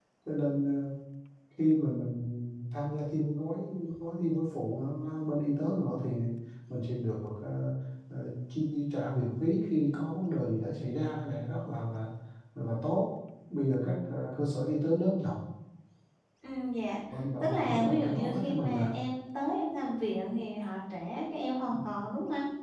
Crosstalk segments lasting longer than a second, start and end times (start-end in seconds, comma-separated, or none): 17.4-18.9